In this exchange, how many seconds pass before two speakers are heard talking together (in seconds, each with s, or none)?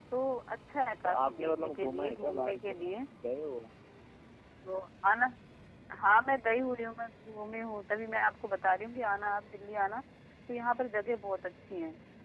1.0 s